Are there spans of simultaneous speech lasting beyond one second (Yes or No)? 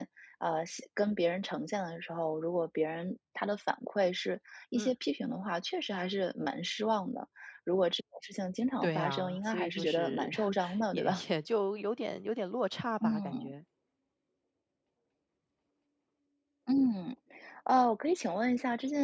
Yes